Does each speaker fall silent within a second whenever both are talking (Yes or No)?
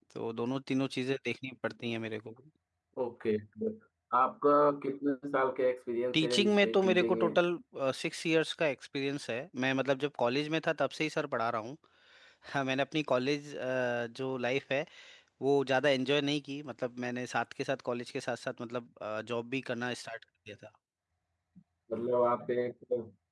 No